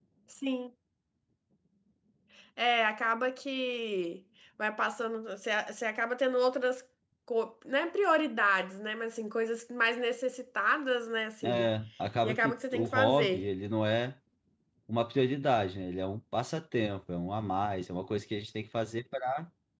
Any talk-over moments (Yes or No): Yes